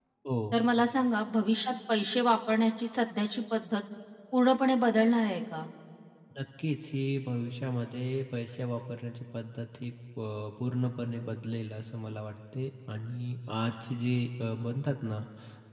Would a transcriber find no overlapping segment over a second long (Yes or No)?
Yes